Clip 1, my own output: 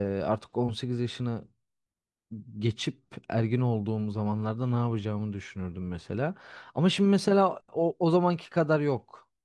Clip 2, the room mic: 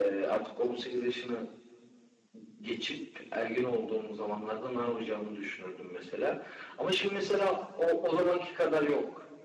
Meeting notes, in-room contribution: none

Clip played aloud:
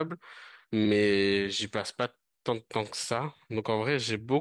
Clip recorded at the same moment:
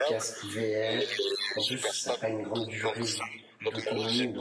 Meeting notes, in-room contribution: present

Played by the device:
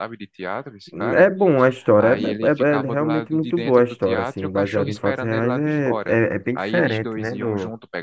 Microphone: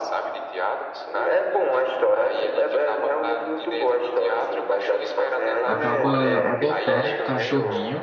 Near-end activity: present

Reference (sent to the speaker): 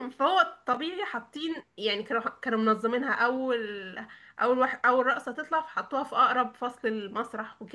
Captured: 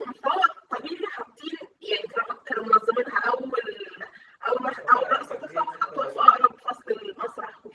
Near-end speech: present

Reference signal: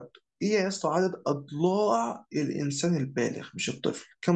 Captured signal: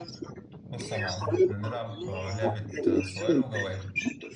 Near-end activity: present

